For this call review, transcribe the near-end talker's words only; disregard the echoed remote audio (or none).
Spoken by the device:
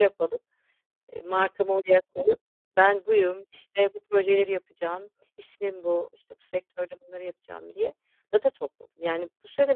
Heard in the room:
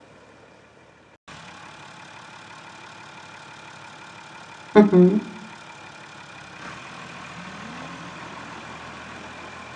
Hı hı.